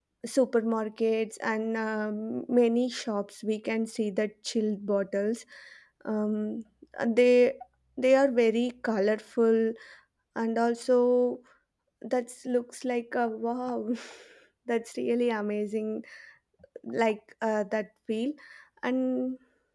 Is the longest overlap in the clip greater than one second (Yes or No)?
No